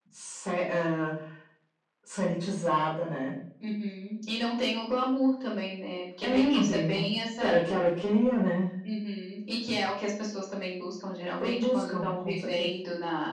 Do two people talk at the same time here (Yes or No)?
Yes